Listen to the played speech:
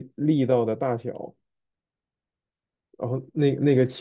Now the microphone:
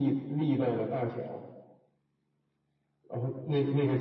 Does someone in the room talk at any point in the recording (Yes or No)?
No